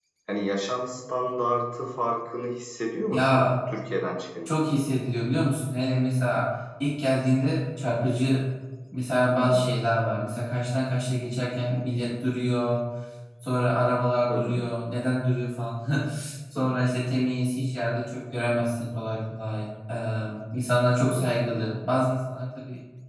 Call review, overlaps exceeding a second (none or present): none